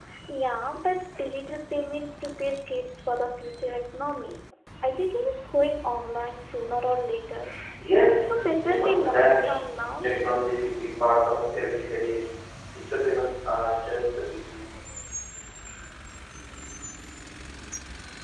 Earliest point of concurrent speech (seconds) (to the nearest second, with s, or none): 8 s